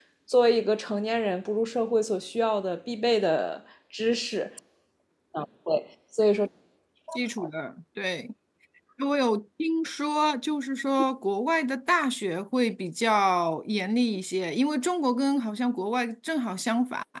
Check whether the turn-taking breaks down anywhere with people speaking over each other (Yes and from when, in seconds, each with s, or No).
No